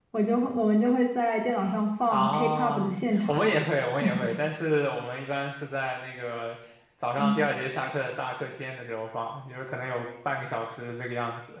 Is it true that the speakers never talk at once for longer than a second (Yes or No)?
No